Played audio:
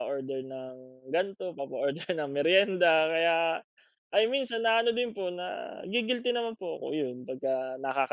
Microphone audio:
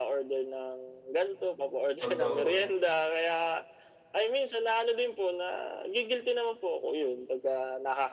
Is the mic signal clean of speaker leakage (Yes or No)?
No